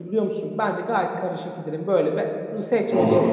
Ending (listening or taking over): listening